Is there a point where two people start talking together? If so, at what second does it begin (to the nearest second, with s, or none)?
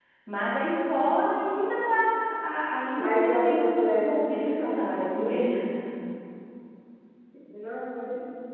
3 s